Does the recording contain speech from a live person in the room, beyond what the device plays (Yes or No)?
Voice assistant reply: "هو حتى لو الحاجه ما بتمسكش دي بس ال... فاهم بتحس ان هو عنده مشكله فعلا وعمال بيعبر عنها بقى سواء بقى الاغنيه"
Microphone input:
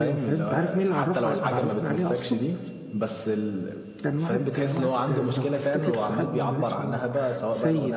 Yes